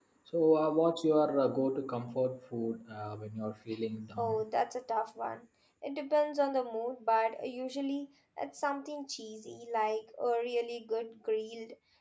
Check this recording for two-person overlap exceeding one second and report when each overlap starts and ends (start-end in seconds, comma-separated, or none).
none